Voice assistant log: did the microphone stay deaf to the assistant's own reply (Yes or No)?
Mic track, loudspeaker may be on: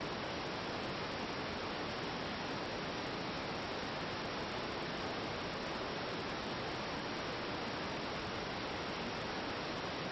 Yes